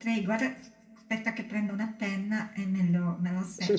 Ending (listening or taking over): taking over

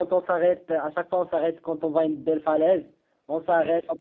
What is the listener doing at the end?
listening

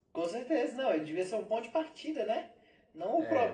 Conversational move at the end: taking over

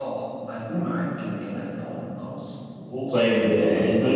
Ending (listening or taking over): taking over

